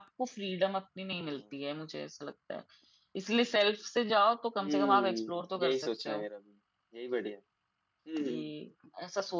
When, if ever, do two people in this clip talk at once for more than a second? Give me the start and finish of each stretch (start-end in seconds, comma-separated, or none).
4.6-6.2